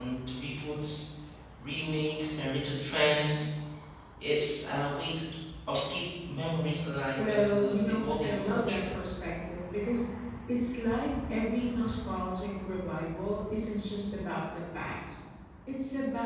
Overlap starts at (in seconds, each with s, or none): 7.2 s